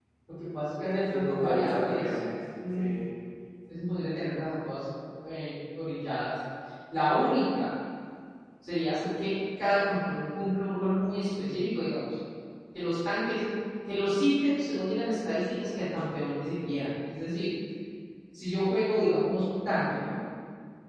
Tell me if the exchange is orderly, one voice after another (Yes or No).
No